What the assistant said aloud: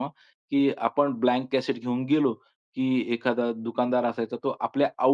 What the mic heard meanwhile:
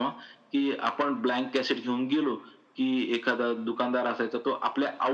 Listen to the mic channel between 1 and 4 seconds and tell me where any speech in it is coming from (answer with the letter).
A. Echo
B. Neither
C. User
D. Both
A